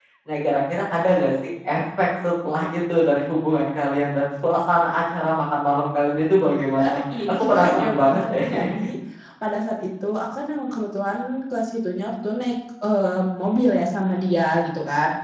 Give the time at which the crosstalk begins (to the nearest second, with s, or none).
7 s